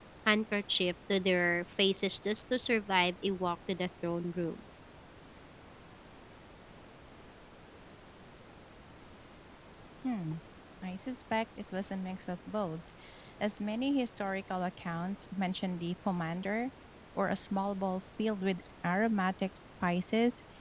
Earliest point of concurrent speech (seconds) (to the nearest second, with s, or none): none